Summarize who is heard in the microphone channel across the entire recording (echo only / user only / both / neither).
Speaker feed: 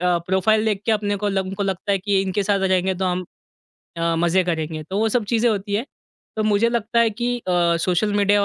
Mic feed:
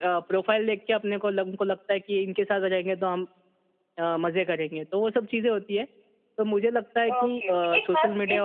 both